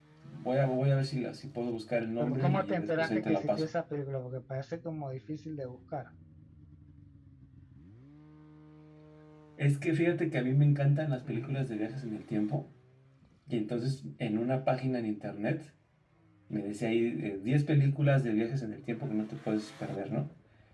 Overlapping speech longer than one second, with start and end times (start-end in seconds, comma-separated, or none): 2.2-3.7